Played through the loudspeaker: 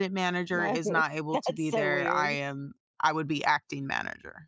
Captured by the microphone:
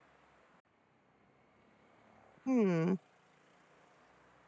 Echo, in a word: none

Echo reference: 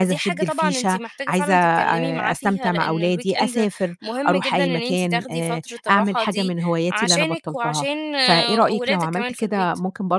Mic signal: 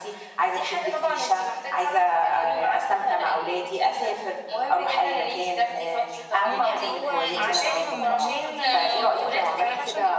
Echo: present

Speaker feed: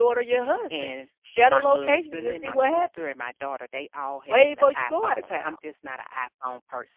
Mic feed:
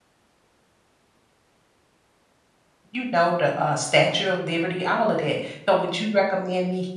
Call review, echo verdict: none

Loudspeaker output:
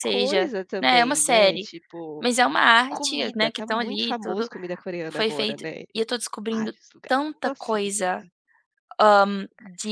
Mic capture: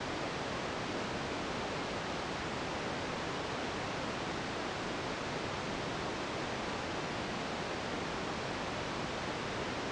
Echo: none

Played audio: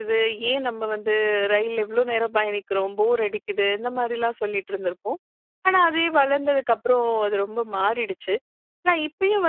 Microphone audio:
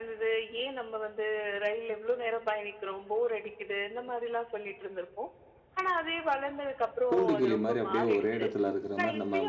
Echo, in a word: present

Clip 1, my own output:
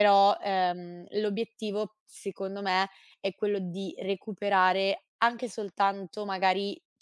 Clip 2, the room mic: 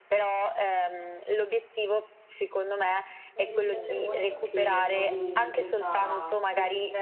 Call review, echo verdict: present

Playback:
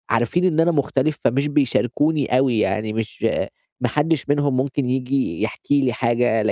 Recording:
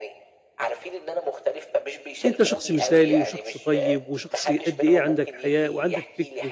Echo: present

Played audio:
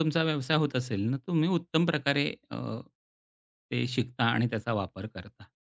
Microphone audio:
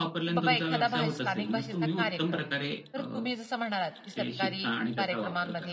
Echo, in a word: present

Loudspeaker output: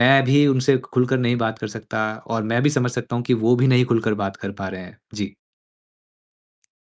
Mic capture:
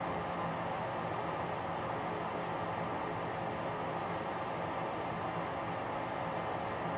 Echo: none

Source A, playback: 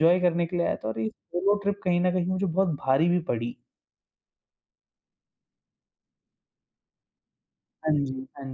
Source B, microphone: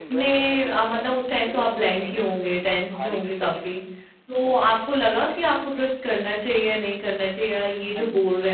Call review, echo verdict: present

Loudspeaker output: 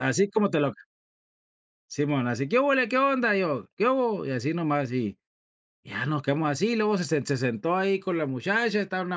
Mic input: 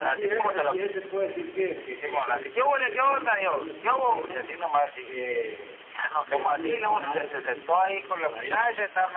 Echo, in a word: present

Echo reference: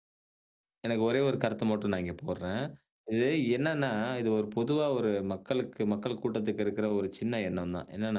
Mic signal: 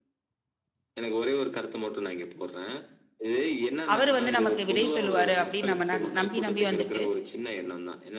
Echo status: present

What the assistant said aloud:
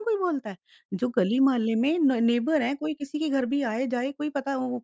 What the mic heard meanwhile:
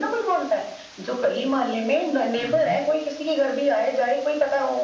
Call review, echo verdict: present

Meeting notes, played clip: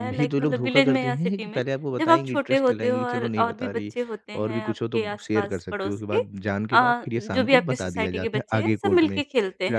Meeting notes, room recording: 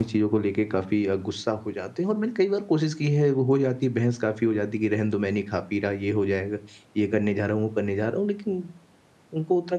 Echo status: none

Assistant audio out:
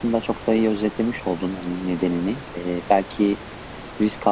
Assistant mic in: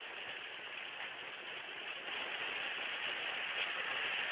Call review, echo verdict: none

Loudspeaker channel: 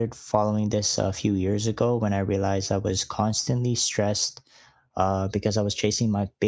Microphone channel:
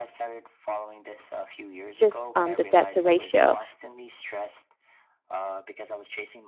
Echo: present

